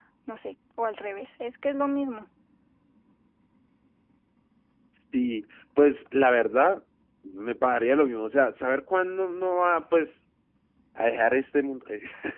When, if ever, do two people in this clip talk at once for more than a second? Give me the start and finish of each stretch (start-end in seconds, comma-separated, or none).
none